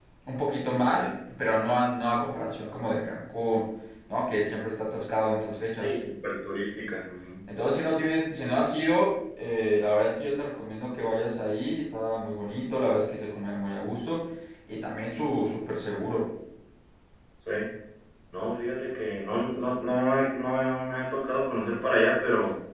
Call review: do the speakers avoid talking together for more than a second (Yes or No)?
Yes